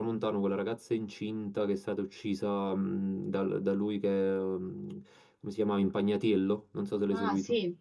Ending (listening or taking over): taking over